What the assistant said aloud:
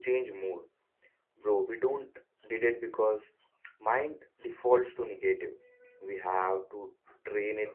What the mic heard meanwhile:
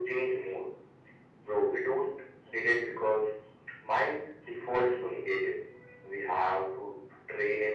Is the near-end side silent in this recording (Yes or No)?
Yes